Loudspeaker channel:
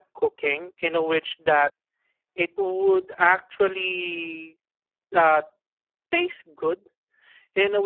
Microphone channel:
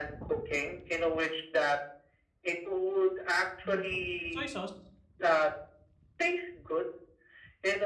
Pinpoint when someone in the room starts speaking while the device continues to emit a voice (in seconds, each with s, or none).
3.6 s